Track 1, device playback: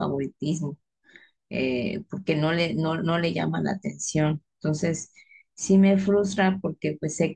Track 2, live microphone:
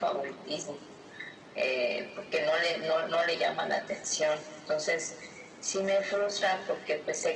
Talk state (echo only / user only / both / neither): echo only